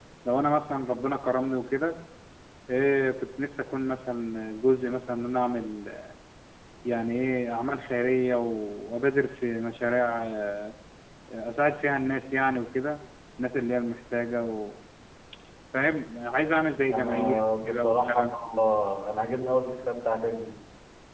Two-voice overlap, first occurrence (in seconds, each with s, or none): 16.9 s